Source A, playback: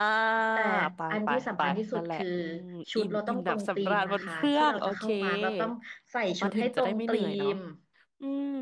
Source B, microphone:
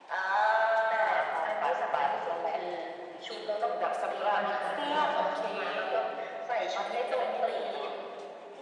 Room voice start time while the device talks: 4.3 s

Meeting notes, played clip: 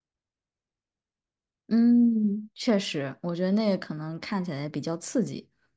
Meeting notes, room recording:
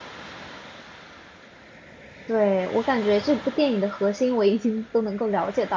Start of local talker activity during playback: 2.3 s

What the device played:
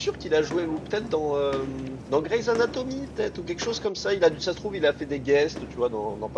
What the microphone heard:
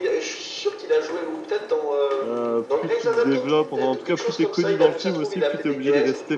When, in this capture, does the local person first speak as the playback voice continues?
2.2 s

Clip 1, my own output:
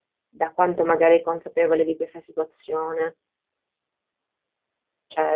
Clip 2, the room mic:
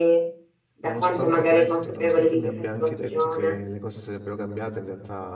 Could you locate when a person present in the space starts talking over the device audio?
0.8 s

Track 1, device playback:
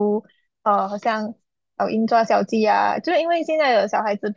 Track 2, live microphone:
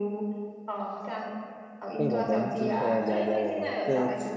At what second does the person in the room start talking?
2.0 s

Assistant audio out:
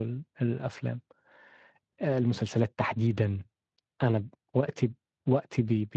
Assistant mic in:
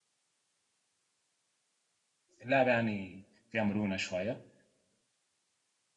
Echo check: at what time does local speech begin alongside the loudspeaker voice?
2.4 s

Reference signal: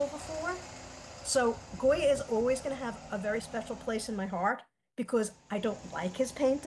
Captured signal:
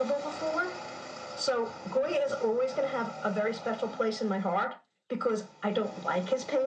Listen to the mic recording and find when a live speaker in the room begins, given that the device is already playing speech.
none

